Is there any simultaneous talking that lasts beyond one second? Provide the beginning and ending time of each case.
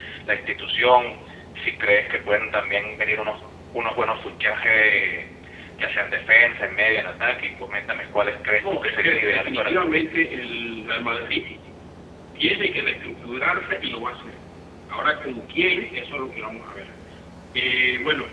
8.6-10.0

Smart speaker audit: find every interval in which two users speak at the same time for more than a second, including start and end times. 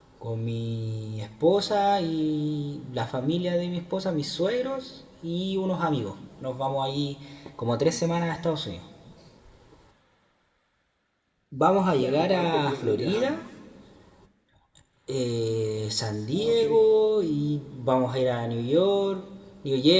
12.0-13.3

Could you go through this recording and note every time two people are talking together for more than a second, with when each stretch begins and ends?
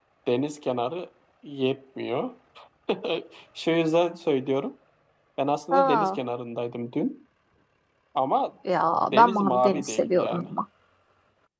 9.1-10.4

